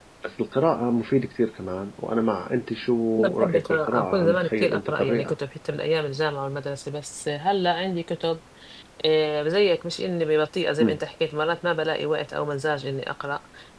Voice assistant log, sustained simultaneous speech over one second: present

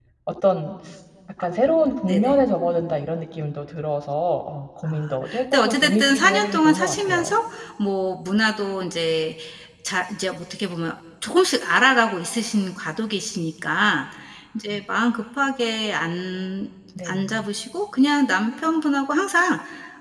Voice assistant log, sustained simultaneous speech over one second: present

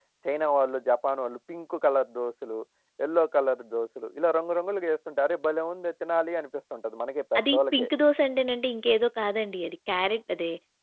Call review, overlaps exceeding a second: none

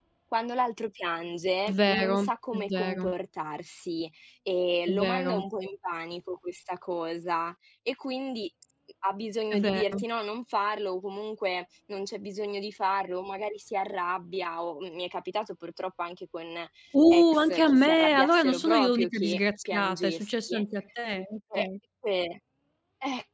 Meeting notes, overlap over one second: present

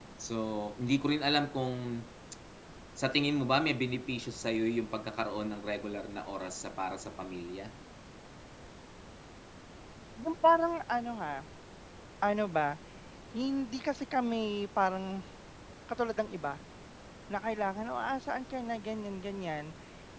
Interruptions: none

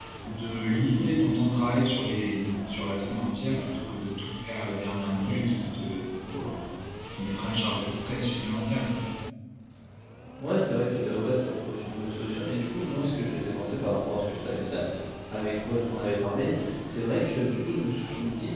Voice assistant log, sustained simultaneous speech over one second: none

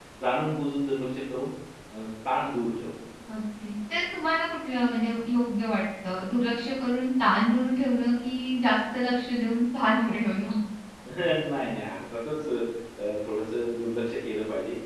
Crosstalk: none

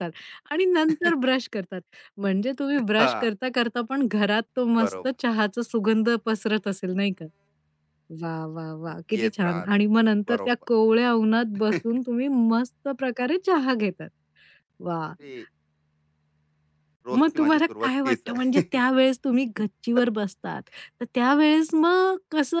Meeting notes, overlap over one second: present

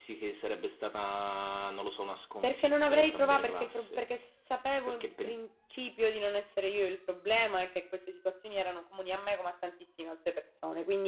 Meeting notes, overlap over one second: present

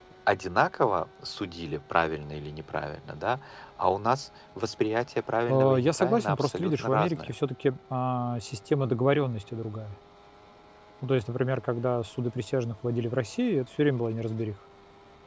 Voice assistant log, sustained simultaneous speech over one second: present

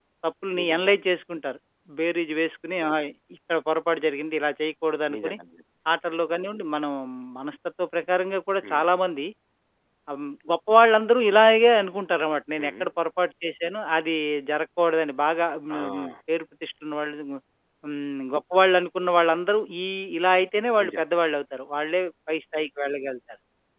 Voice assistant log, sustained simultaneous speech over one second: none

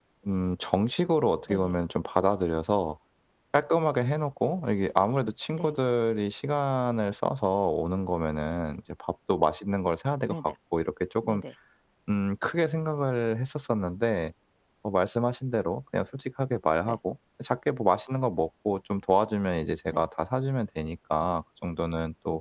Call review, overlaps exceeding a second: none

